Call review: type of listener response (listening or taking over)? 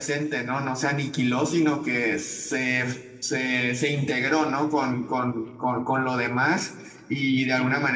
listening